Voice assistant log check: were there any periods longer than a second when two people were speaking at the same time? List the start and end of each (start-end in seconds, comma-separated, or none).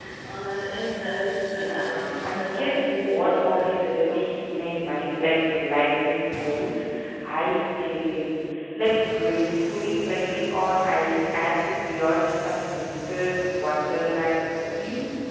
1.5-4.4